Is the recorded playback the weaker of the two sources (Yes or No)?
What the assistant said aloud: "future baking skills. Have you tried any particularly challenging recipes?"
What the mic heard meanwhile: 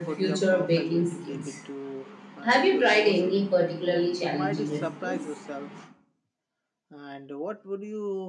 No